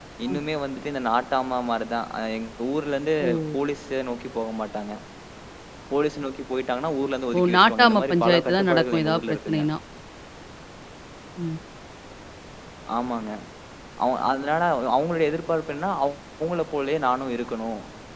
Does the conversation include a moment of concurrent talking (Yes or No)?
Yes